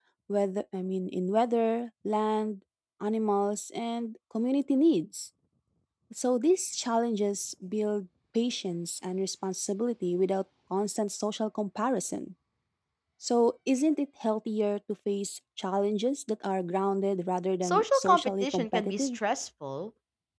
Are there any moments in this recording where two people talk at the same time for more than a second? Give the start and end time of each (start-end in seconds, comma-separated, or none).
17.6-19.2